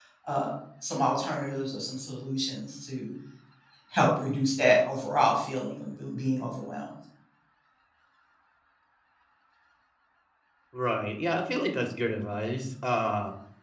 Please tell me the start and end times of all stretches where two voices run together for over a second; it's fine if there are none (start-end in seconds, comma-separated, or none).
none